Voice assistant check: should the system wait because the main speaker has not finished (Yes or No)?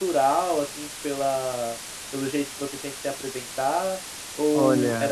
Yes